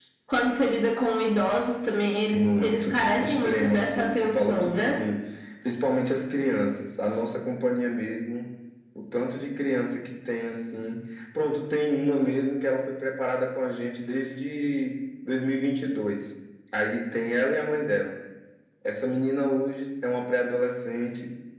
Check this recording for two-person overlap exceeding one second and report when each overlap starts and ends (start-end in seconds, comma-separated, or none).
2.3-5.0